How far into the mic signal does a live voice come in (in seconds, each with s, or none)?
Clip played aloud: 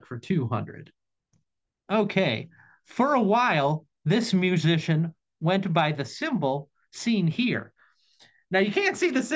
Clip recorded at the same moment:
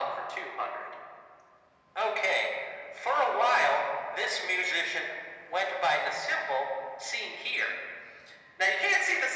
none